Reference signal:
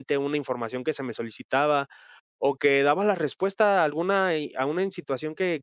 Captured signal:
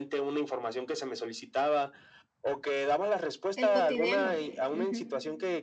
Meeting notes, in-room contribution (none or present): present